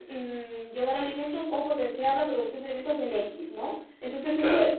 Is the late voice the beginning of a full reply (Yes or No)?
No